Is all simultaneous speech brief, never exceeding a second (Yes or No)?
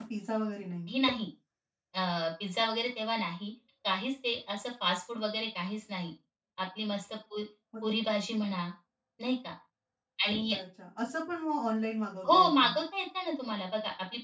Yes